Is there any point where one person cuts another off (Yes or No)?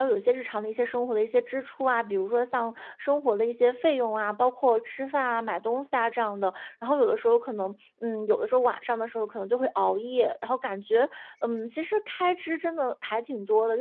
No